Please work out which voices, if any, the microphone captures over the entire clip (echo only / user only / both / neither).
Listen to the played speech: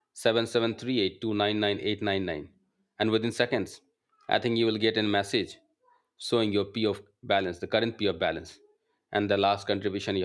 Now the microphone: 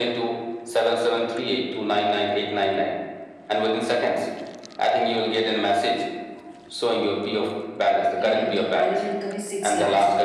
both